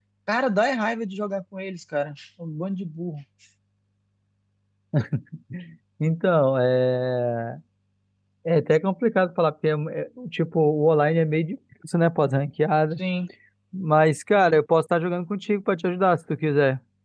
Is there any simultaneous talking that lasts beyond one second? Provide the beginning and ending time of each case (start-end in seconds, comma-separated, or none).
none